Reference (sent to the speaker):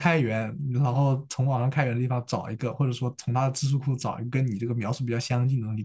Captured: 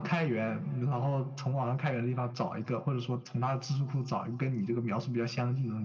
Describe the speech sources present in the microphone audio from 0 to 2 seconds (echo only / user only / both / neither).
echo only